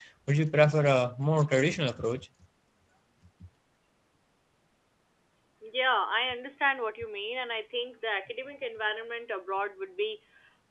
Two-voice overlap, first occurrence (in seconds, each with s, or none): none